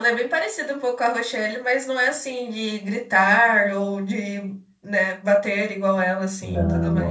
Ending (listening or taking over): taking over